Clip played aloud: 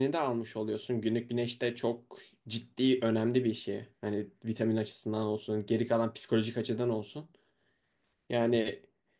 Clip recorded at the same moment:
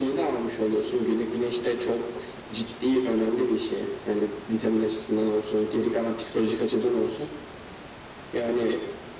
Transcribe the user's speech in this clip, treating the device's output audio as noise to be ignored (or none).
none